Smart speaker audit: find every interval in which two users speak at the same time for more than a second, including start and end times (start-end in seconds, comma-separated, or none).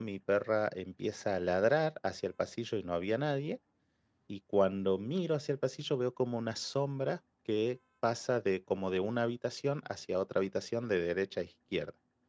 none